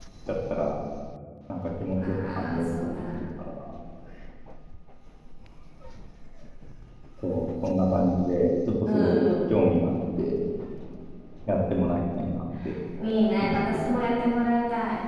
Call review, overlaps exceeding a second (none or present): present